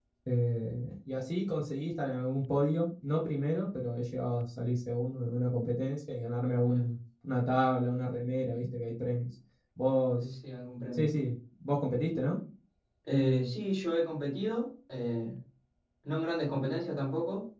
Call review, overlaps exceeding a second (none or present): none